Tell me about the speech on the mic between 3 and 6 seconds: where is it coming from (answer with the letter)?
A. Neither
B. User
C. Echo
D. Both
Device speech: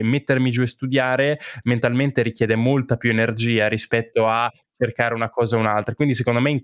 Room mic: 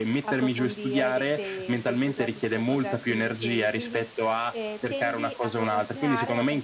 D